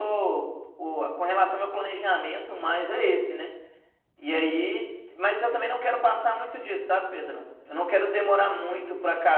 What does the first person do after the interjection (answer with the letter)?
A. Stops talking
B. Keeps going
B